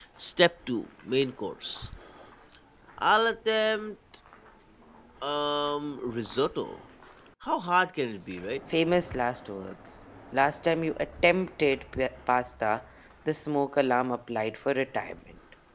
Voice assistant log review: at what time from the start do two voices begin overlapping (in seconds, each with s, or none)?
none